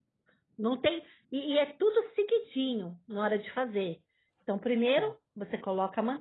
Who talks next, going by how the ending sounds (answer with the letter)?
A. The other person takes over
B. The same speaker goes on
B